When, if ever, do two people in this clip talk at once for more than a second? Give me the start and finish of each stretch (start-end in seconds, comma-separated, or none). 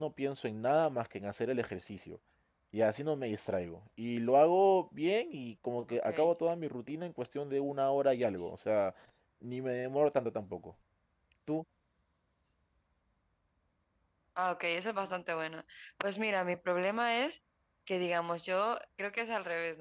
none